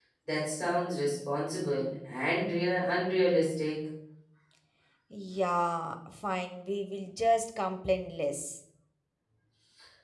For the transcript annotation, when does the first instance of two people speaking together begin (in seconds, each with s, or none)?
none